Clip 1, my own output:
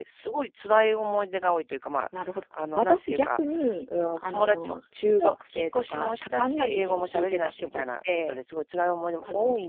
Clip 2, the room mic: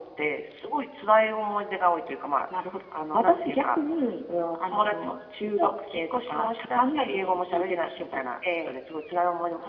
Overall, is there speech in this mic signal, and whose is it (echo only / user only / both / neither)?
echo only